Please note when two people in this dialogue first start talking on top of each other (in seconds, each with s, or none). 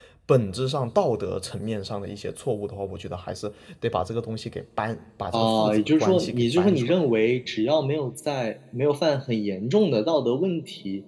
5.3 s